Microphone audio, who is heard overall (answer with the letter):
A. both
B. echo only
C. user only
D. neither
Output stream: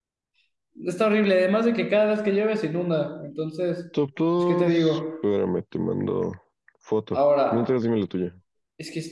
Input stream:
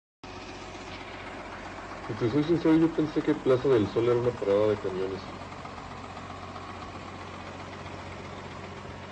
C